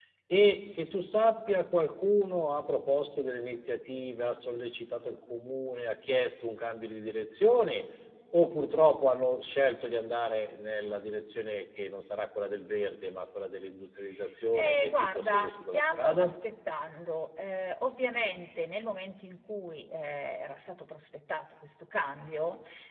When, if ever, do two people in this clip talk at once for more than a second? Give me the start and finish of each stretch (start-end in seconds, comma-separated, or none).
14.6-16.3